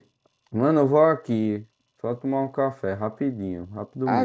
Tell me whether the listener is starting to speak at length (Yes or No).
Yes